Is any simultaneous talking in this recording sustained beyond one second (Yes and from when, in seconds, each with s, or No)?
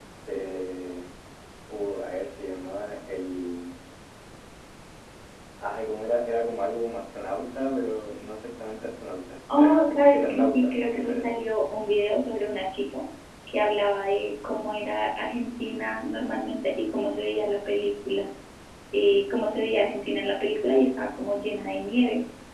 Yes, from 9.5 s